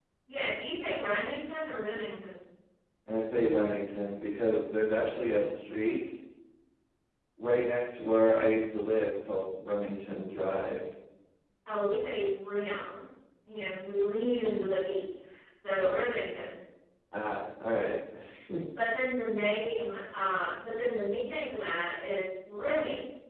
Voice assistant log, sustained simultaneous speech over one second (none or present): none